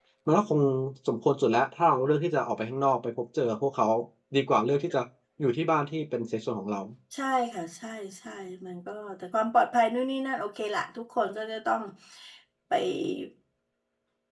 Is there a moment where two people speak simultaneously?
No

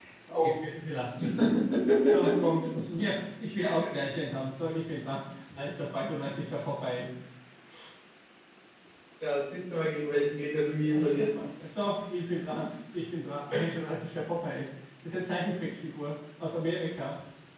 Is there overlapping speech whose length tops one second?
No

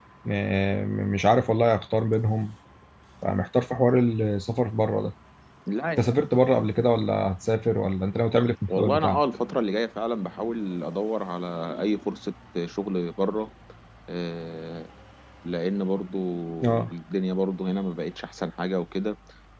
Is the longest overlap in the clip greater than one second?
No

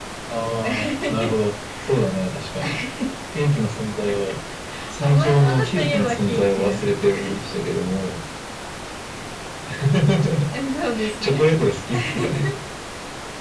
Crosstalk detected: Yes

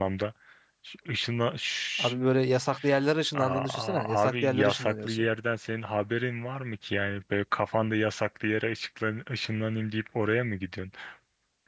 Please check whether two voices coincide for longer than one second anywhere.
Yes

